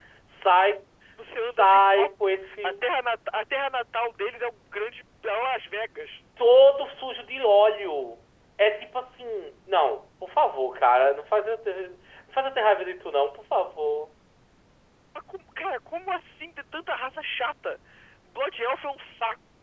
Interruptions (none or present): present